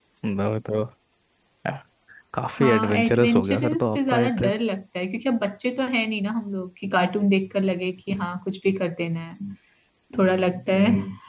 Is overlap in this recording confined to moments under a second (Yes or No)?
No